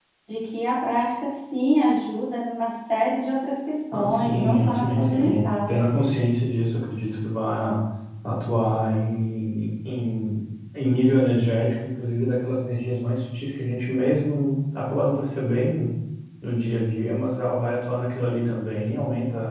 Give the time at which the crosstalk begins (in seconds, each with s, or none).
3.9 s